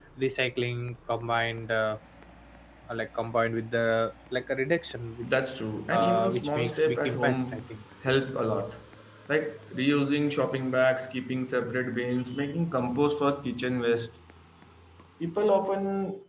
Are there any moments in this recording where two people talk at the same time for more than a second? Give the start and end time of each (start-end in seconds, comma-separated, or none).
5.9-7.6